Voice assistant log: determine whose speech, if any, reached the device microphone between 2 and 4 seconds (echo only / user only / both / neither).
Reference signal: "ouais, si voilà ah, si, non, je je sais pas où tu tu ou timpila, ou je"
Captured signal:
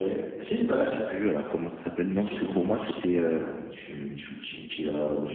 both